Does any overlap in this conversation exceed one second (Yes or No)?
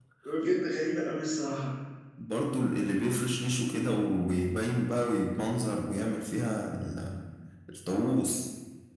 No